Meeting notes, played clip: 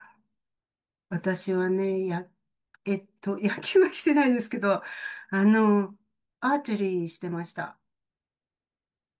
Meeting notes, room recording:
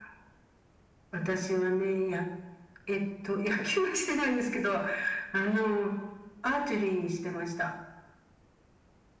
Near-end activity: none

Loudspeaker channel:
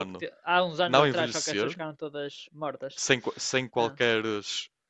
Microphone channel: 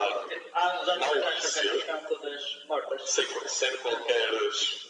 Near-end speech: none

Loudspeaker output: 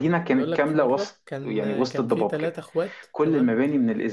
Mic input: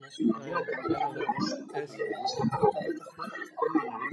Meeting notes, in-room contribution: present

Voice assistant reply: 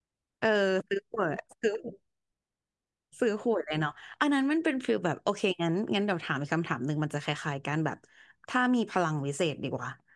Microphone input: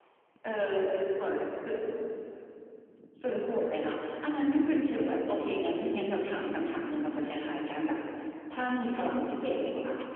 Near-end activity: none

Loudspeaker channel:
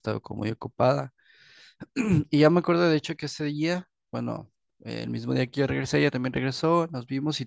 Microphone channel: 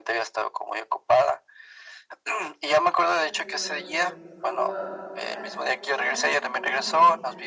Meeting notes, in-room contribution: present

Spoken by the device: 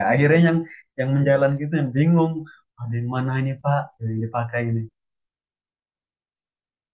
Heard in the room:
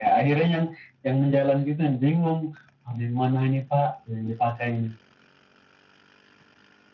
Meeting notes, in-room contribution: none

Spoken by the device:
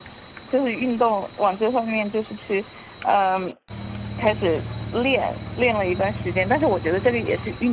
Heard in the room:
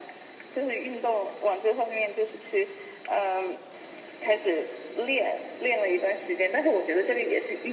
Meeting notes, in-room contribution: none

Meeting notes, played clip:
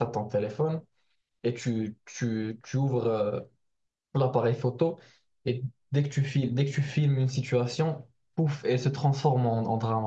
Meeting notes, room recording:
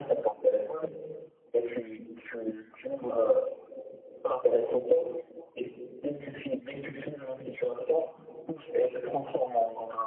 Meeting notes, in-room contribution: none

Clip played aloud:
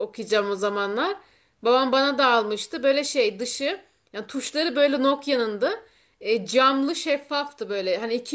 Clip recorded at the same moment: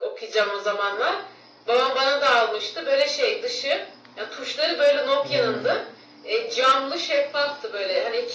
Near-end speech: present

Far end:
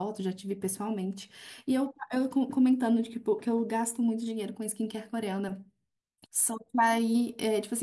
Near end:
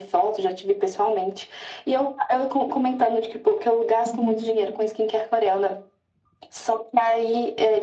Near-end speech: present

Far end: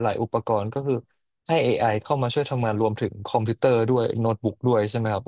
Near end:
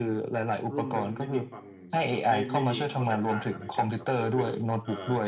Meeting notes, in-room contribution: present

